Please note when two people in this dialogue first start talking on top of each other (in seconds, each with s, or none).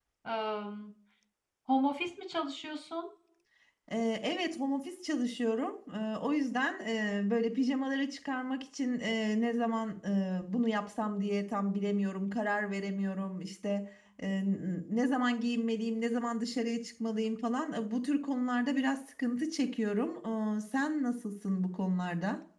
none